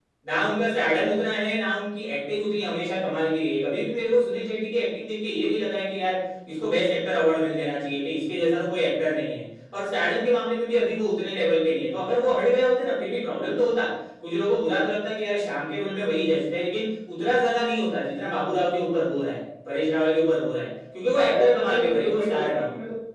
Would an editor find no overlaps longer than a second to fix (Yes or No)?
No